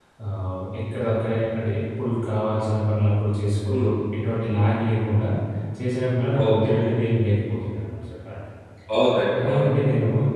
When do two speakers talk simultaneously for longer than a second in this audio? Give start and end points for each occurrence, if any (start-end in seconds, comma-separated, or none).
none